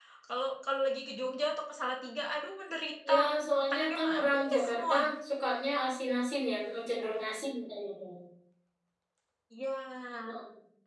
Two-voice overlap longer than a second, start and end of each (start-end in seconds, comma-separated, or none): 3.6-5.0